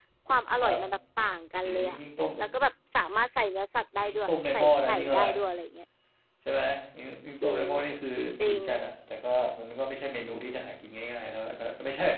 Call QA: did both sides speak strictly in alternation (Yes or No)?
No